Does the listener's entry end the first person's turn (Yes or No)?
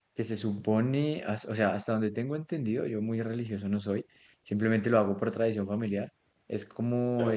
No